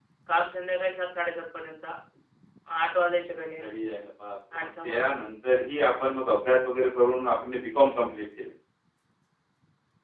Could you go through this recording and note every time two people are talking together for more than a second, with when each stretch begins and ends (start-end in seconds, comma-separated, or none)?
none